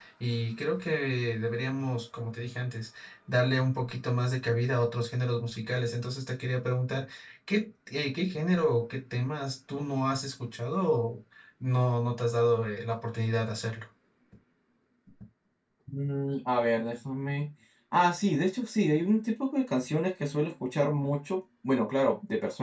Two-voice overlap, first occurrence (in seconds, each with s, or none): none